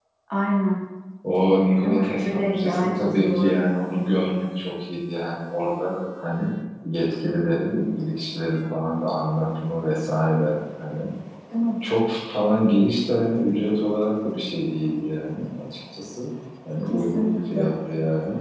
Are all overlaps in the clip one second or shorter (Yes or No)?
No